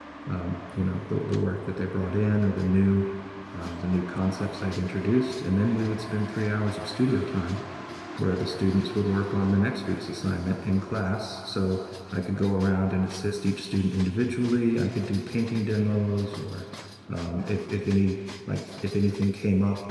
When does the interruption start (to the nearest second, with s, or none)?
none